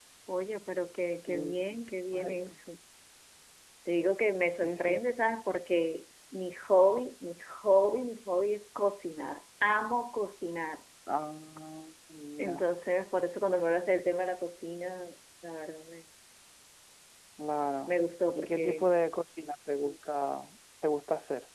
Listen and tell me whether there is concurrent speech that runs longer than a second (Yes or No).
No